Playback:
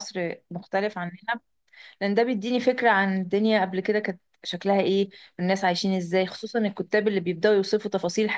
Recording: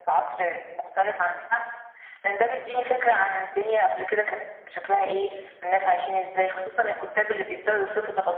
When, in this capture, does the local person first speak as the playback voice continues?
none

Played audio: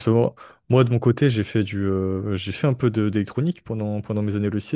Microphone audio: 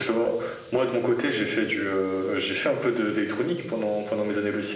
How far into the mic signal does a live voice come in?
none

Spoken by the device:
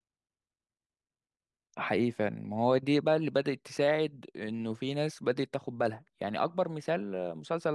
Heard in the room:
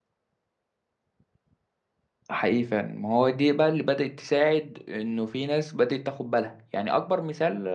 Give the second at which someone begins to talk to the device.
none

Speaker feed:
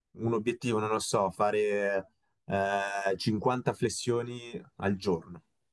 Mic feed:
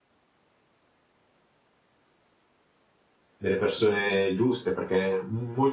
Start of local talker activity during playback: 3 s

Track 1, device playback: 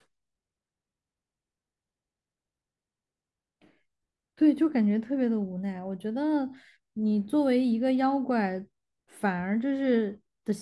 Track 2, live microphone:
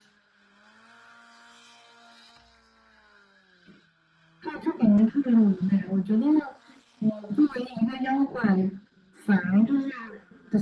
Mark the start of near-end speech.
none

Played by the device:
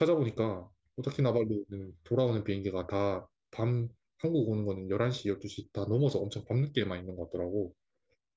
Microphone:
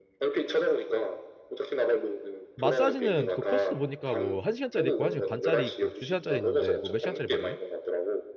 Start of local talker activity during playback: 3 s

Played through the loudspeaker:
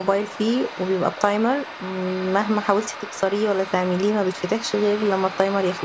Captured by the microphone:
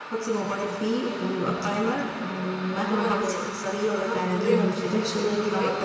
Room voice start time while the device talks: 3 s

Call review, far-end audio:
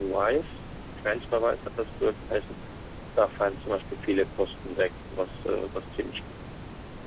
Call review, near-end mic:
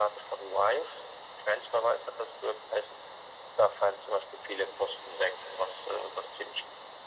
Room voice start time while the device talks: none

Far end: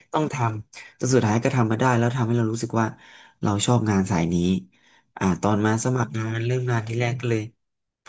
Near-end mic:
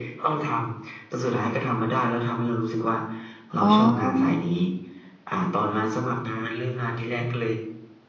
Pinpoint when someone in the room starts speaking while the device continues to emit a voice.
4 s

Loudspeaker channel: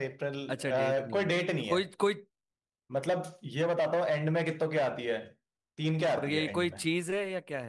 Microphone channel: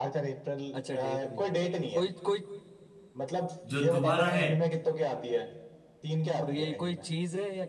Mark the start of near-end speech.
4 s

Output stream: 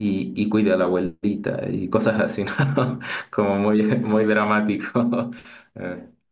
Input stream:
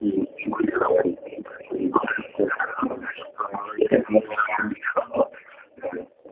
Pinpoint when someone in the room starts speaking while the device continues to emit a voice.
none

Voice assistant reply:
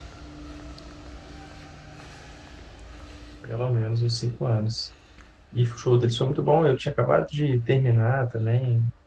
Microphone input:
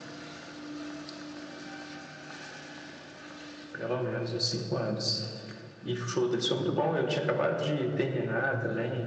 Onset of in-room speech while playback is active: none

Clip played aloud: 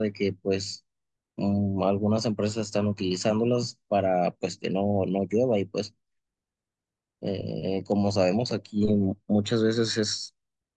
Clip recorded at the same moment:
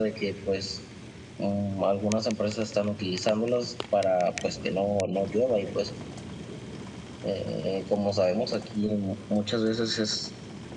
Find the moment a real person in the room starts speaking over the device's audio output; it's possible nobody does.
none

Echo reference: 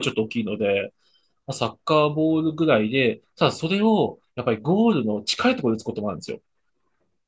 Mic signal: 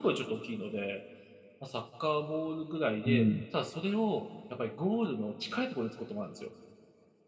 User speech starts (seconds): 3 s

